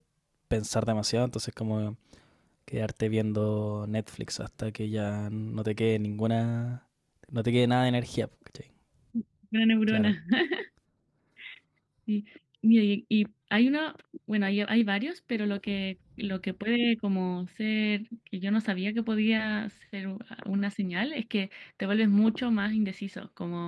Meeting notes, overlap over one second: none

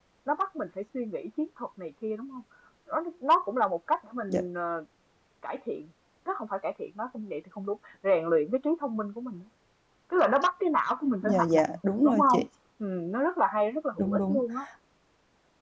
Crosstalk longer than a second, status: none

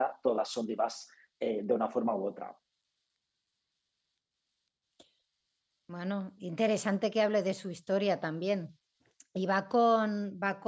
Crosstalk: none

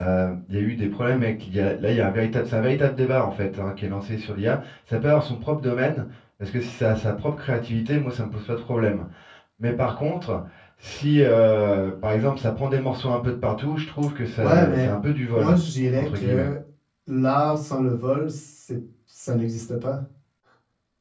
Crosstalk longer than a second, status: none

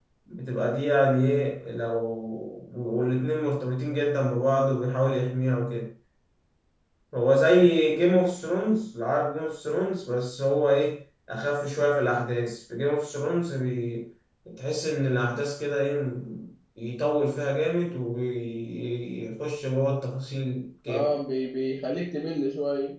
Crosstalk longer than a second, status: none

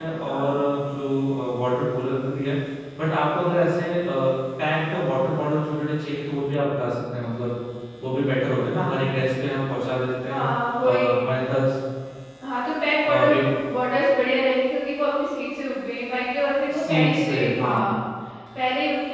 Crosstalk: present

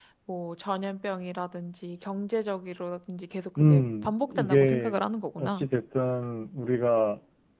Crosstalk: present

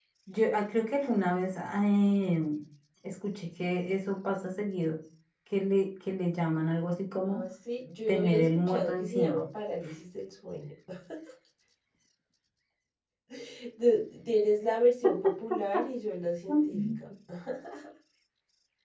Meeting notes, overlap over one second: present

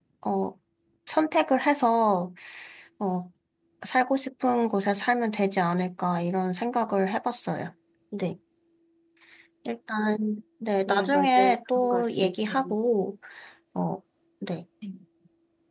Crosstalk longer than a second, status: present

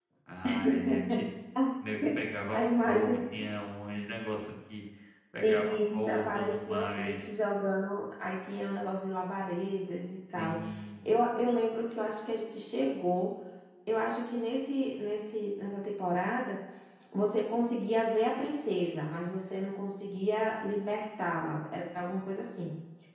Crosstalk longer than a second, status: present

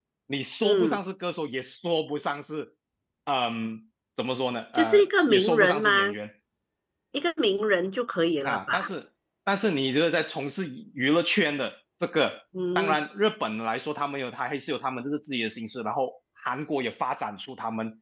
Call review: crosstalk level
present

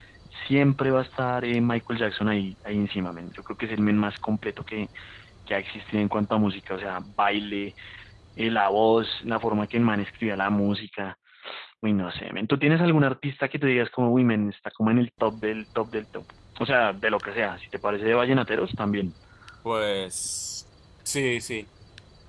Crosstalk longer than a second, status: none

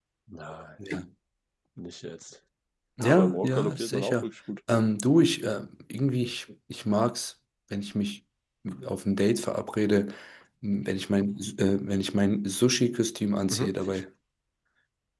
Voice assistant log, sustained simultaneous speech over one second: present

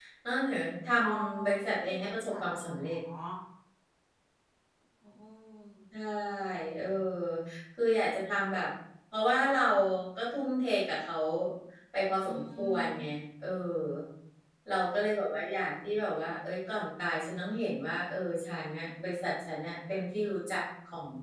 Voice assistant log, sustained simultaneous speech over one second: present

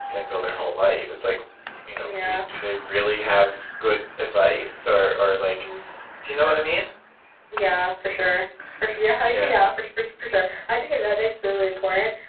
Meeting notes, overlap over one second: none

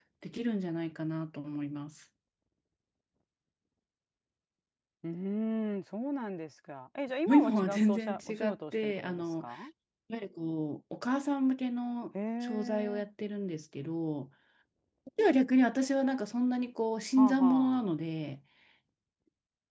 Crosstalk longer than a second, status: present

